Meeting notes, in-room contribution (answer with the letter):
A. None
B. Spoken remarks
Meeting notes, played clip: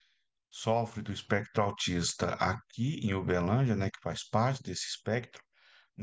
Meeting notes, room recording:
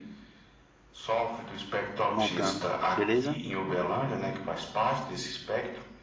B